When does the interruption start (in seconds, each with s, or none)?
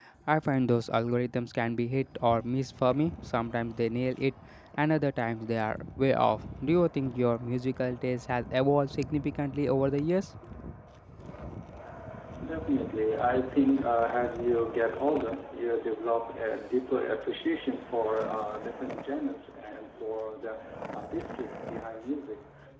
none